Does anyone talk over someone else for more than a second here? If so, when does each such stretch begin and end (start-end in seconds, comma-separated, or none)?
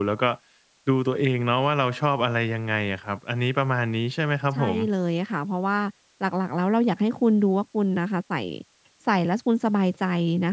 none